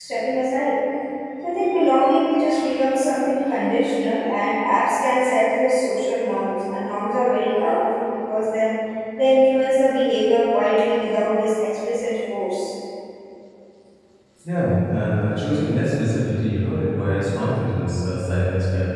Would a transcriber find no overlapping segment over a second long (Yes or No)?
Yes